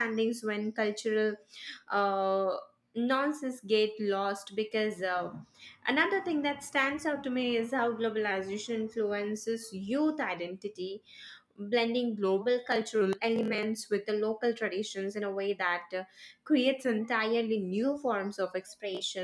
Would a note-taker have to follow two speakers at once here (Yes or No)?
No